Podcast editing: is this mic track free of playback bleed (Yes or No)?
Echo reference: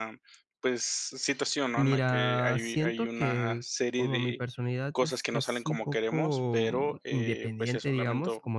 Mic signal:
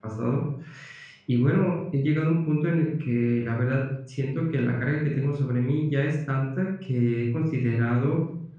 Yes